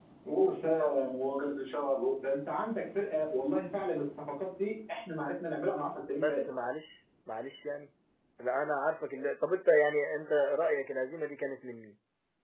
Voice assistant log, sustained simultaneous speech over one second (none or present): none